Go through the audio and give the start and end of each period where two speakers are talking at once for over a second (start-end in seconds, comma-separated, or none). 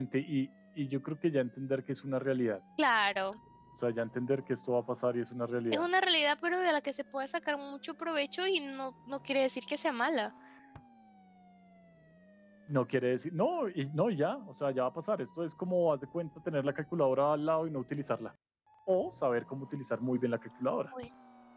none